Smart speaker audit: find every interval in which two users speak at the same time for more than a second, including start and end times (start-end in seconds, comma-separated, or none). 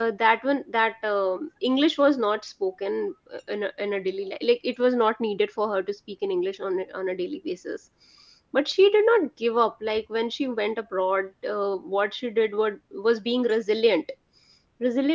none